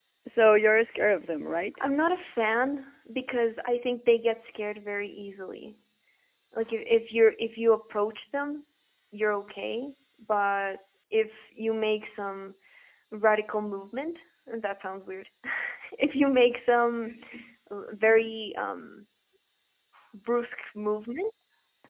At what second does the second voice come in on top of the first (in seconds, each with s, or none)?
none